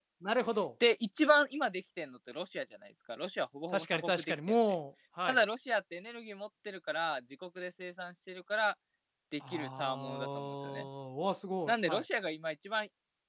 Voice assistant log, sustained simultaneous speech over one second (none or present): present